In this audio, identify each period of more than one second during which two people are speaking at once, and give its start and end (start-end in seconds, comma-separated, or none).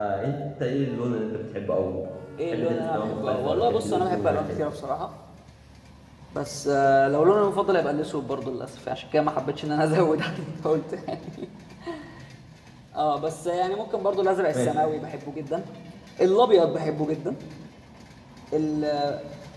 2.5-4.6